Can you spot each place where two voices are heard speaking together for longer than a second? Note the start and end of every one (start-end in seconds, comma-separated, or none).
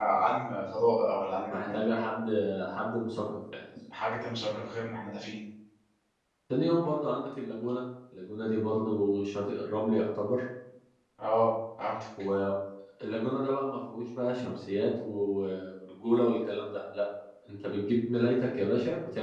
none